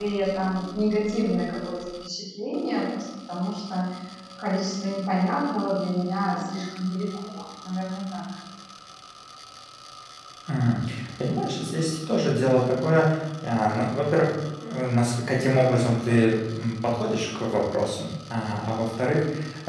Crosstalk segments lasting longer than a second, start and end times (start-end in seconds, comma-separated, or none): none